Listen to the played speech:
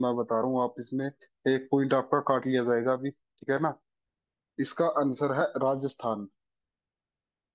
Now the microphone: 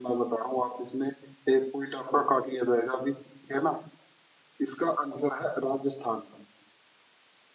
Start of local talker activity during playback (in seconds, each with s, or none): none